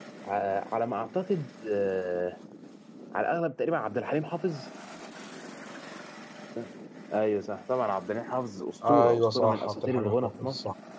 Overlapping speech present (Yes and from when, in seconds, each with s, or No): Yes, from 8.8 s